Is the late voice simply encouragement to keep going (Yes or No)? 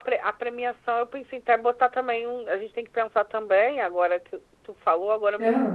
Yes